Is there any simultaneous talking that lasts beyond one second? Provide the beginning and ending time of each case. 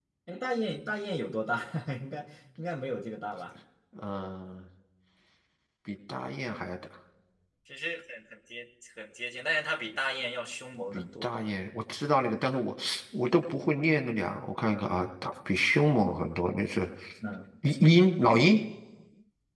none

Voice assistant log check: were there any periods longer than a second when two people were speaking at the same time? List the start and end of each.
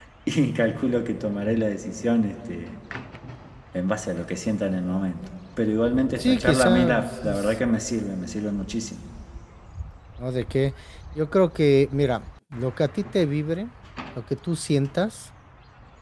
6.2-7.5

